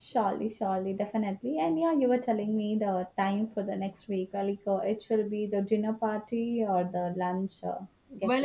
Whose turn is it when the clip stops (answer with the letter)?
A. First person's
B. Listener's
B